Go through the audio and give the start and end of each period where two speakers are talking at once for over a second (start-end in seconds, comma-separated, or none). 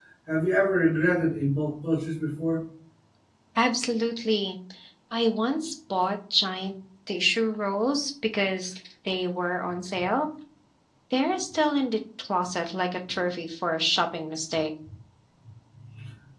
none